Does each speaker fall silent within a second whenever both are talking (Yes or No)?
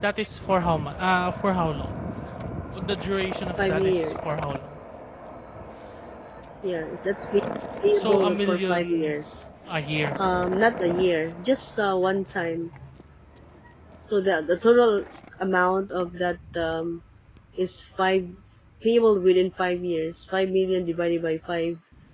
No